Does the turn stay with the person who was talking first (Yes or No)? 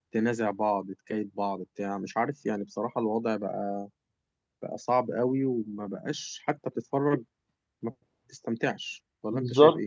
No